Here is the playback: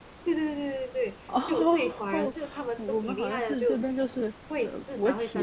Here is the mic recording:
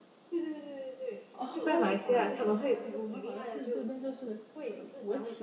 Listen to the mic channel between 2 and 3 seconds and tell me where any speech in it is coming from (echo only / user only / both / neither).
both